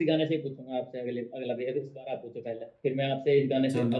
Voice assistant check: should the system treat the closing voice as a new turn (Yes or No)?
No